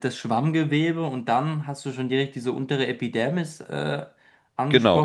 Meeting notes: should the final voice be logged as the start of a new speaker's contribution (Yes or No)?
Yes